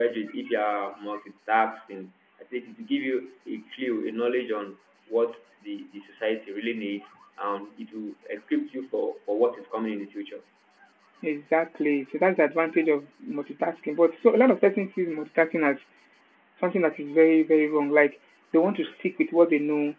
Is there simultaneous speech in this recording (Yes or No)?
No